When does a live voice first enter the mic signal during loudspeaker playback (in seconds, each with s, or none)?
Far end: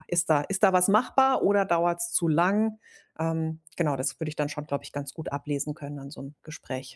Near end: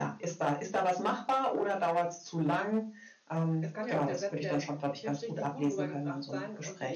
3.6 s